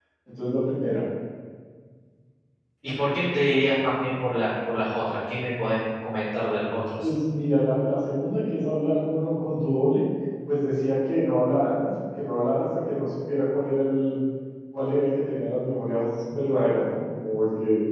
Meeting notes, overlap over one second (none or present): none